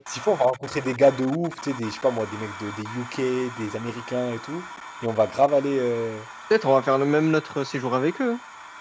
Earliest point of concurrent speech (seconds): none

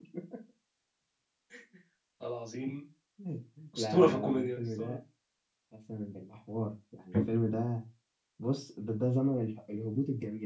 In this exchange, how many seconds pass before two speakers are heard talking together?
3.8 s

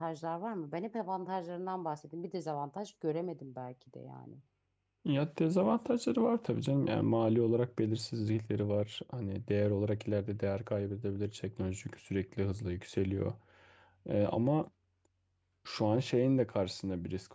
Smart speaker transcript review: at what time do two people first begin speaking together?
none

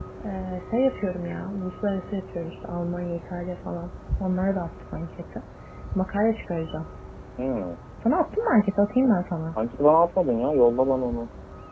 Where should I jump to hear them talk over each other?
none

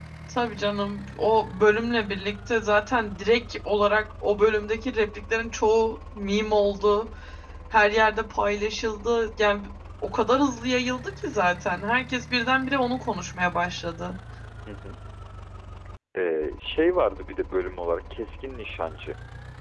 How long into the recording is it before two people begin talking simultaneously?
none

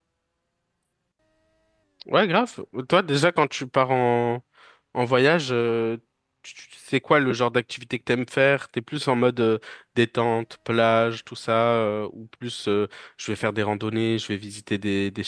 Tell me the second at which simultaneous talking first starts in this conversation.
none

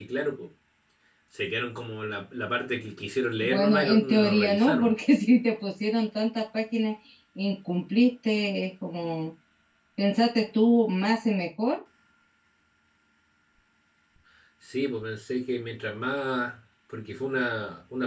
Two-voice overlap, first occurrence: 3.4 s

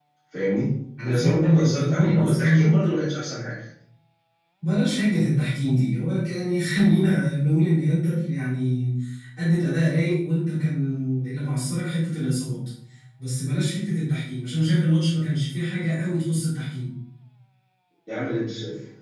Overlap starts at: 1.1 s

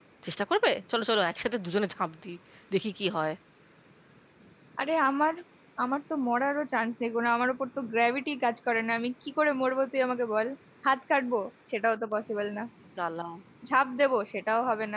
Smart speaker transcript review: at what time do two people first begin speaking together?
none

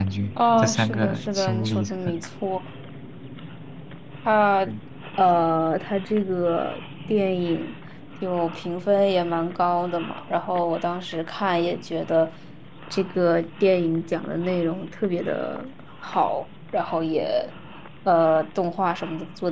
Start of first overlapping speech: 0.6 s

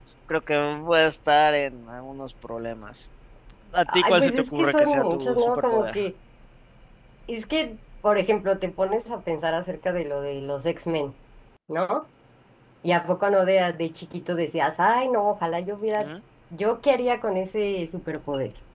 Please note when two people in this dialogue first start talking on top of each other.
3.9 s

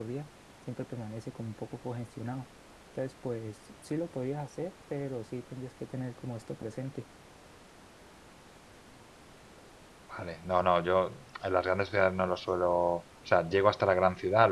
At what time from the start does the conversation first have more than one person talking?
none

